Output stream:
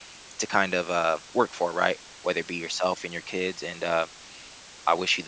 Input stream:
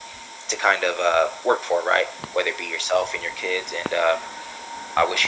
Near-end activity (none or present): none